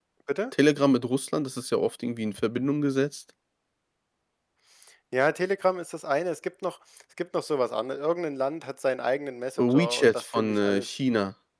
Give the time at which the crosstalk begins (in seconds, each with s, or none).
9.6 s